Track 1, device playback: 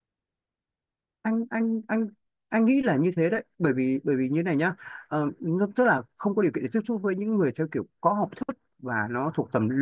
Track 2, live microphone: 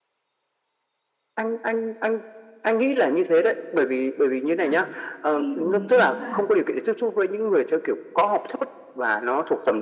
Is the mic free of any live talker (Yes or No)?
No